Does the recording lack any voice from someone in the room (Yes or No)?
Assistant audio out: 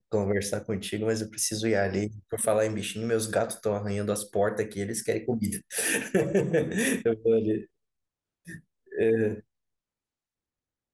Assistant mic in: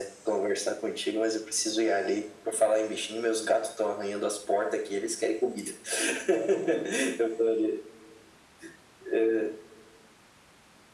Yes